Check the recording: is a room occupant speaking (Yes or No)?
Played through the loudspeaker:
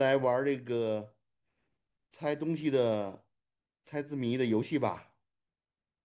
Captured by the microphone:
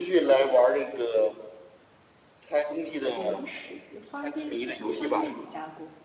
Yes